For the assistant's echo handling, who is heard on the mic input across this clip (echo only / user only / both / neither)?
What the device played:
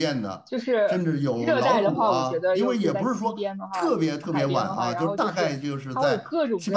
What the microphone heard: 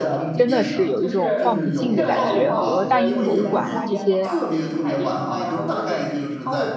both